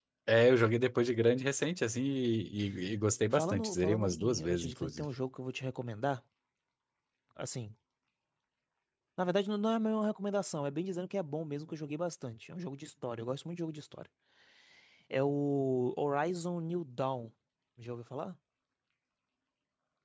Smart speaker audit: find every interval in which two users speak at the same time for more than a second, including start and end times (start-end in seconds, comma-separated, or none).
3.3-5.0